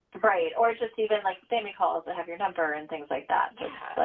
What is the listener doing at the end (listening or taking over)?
taking over